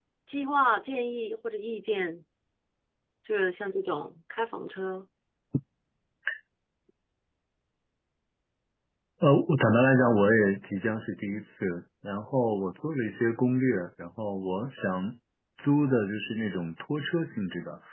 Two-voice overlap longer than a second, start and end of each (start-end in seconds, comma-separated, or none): none